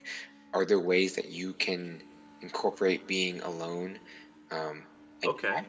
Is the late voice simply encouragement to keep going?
No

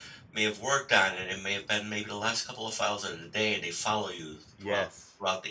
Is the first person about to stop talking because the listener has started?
No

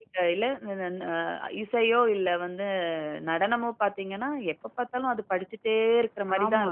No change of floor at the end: No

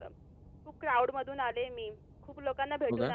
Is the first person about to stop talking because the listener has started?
No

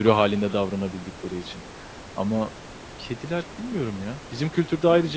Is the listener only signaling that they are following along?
Yes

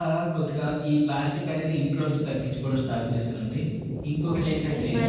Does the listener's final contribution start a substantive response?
Yes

